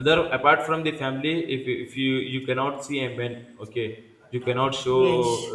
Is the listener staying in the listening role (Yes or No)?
No